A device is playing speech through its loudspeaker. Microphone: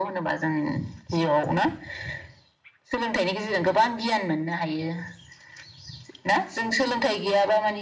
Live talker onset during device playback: none

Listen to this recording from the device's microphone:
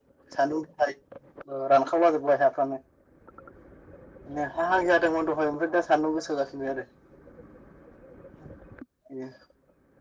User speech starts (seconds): none

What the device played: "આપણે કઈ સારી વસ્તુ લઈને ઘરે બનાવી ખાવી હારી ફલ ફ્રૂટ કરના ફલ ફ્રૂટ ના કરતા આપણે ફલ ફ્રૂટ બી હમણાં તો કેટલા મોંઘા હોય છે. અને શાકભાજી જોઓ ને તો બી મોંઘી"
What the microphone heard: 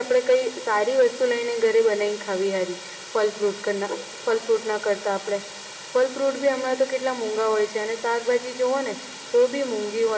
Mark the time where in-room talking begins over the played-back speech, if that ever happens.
none

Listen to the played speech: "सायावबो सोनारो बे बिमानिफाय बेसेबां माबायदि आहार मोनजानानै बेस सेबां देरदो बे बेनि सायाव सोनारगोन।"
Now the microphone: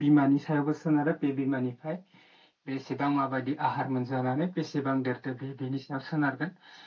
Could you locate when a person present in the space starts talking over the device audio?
none

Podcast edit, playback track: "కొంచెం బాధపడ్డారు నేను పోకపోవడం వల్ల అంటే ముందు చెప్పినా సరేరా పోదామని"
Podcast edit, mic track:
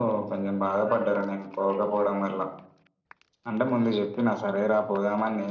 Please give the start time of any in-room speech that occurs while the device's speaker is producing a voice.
none

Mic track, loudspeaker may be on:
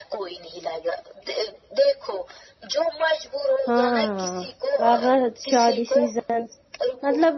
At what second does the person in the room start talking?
3.7 s

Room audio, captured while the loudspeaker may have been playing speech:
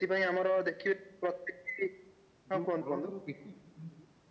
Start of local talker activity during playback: 2.5 s

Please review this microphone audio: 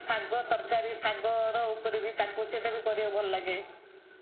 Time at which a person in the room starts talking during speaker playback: none

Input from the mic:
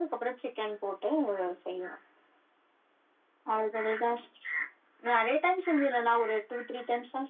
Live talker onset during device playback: none

